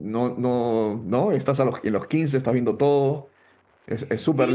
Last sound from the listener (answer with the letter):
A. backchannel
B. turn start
B